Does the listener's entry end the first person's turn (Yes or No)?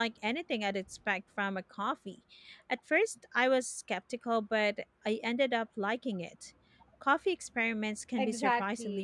Yes